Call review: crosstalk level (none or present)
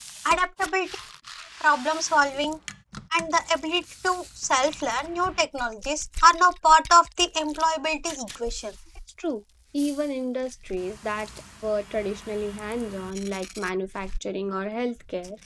none